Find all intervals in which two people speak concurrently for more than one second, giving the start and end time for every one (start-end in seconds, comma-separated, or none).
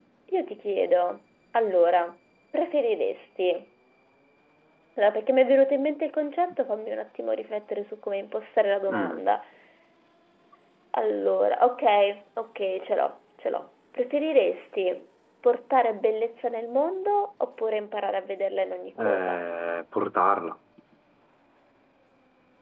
none